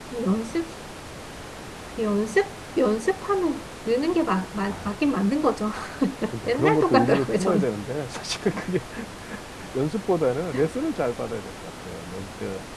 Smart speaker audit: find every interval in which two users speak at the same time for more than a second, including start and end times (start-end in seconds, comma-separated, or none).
6.5-7.7